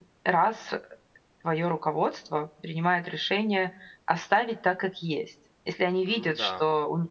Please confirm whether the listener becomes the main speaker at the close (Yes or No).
No